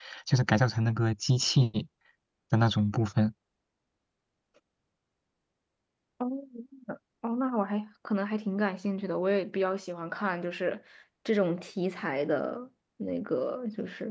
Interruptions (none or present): none